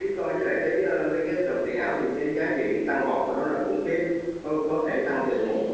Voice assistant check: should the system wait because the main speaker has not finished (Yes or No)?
Yes